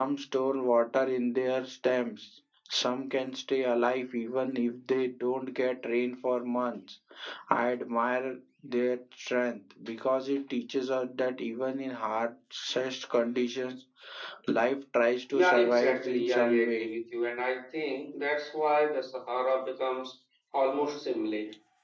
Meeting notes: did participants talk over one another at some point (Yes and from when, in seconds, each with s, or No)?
Yes, from 15.3 s